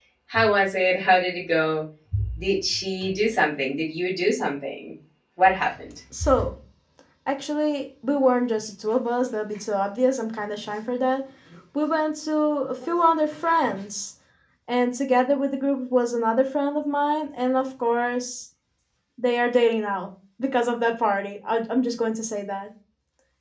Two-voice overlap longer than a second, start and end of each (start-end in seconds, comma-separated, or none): none